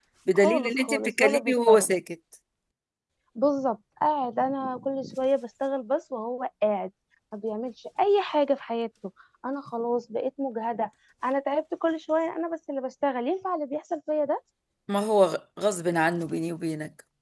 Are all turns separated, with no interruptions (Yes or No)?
No